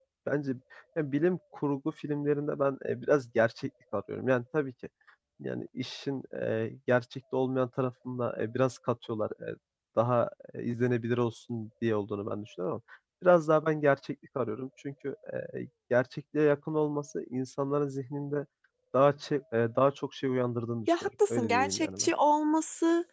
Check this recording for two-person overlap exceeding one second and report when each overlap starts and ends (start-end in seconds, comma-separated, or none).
20.9-22.1